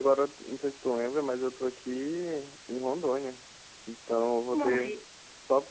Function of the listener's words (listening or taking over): listening